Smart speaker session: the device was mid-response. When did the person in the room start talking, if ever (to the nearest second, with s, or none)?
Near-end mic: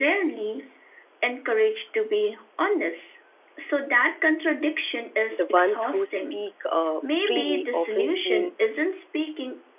5 s